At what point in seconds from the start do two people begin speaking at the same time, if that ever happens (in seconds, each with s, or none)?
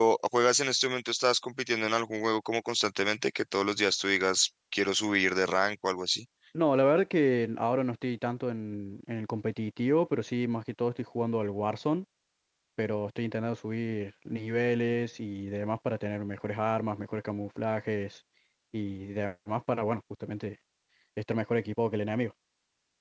none